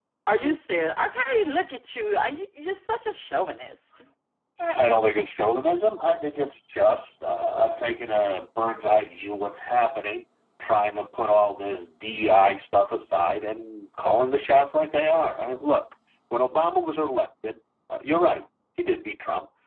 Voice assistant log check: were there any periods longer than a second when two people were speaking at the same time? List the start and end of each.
none

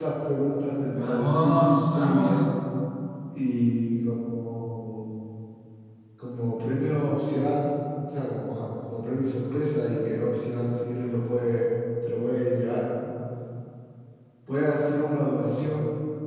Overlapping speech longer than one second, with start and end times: 0.9-2.4

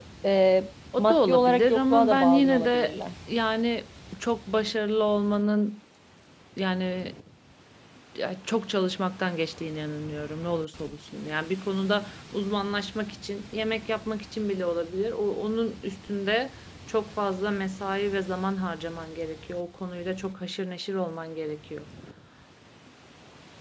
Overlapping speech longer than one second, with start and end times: 1.0-3.0

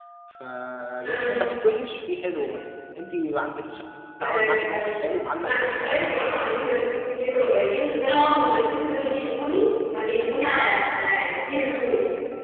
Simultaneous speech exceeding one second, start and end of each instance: 4.2-5.8

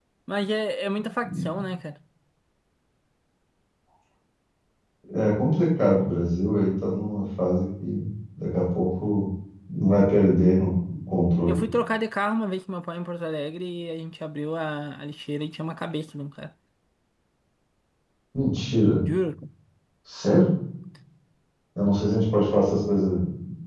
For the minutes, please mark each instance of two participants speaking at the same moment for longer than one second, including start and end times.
none

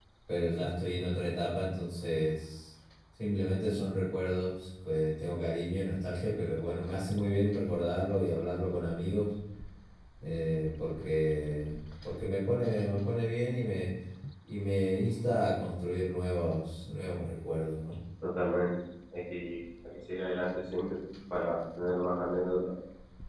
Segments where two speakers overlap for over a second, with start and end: none

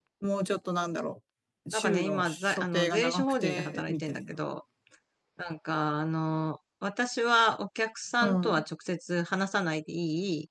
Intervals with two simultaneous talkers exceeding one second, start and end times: 1.7-4.4

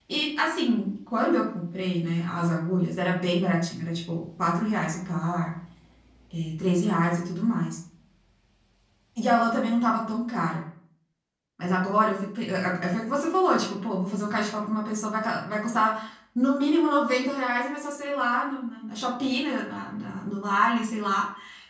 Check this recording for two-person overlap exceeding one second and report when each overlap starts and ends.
none

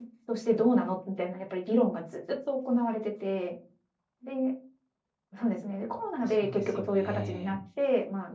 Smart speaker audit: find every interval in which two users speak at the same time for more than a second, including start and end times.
6.2-7.6

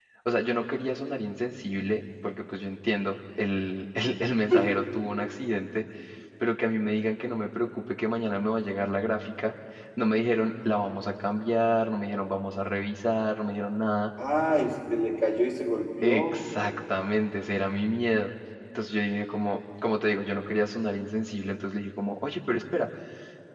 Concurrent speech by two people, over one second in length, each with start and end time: none

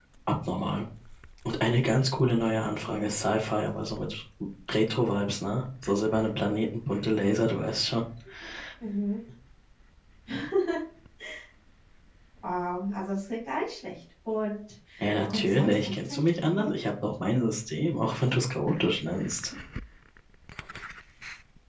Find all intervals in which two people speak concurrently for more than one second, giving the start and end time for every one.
15.3-16.8

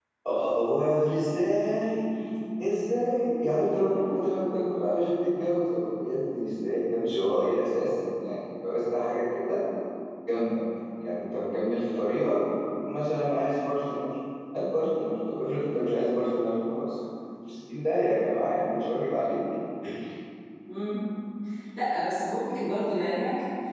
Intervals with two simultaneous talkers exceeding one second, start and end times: none

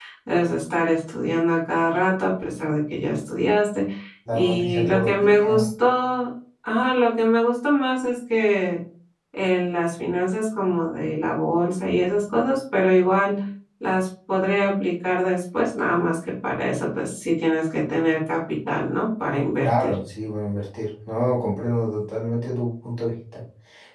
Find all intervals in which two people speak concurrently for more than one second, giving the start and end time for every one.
4.3-5.7

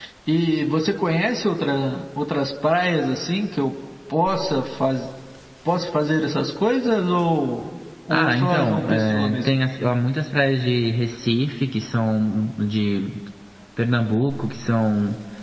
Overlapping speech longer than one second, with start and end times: 8.1-9.4

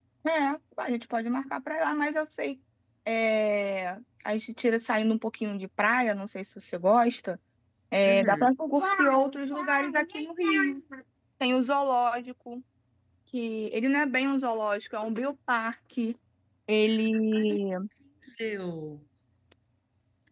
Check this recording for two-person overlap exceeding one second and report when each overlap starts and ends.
none

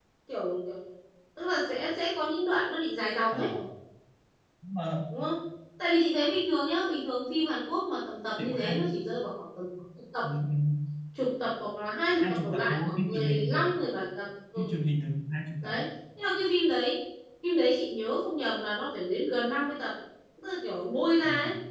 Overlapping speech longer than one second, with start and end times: 12.2-13.7

